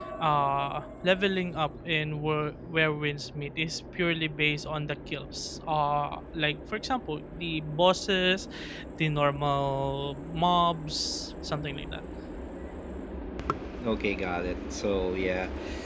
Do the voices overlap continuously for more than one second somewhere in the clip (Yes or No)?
No